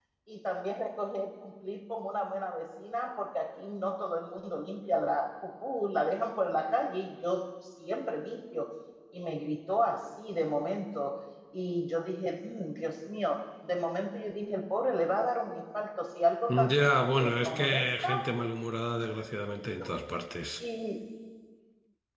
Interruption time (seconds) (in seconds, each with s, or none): 16.5 s